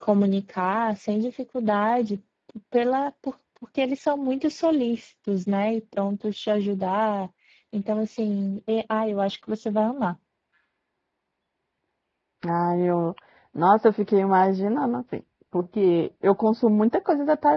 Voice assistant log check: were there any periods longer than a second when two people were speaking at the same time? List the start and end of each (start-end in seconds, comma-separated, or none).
none